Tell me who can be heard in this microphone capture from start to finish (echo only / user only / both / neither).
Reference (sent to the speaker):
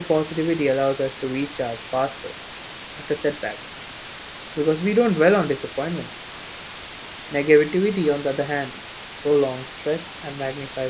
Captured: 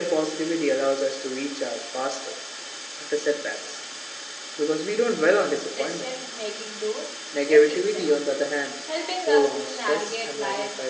both